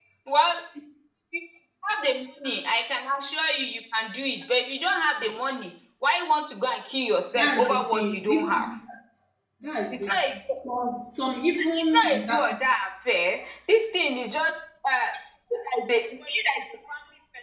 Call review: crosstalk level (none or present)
present